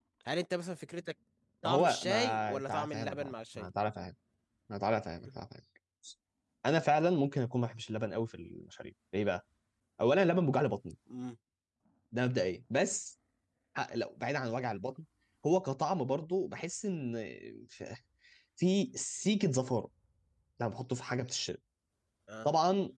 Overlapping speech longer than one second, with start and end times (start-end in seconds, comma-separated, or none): 1.6-3.7